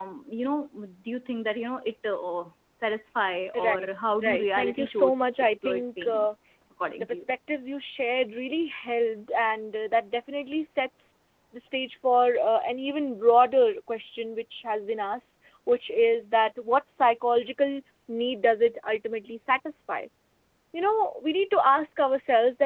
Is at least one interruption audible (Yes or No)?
Yes